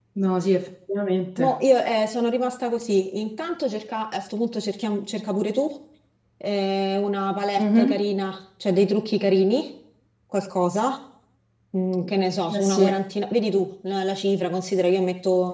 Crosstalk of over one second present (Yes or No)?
No